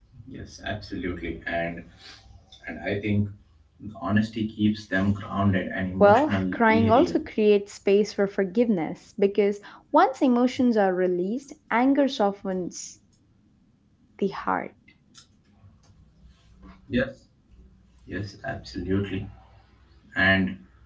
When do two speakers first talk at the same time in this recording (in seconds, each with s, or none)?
6.0 s